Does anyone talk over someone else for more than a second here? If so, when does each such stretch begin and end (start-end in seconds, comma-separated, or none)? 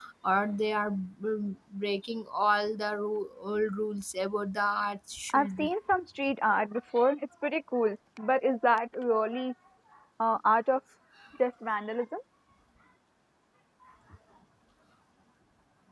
none